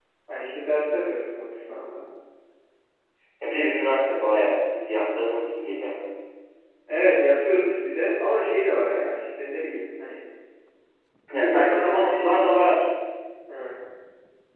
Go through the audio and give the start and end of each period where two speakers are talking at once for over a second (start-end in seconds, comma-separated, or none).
11.4-12.7